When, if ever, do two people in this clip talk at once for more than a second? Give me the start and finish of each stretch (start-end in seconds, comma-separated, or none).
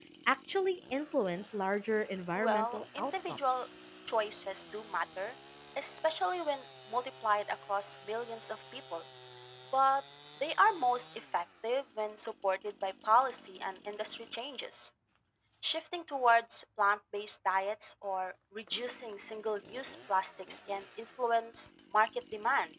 2.4-3.7